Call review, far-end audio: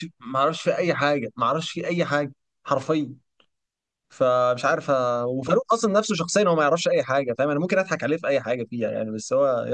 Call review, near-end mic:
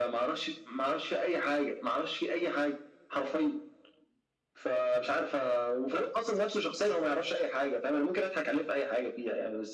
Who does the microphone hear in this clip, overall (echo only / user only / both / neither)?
echo only